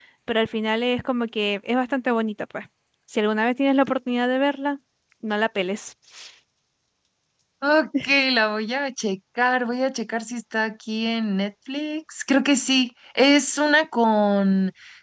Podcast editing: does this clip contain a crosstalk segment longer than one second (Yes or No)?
No